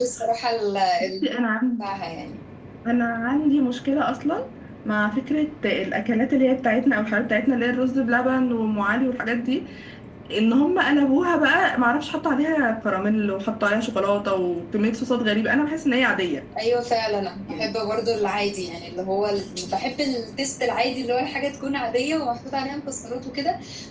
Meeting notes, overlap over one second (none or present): none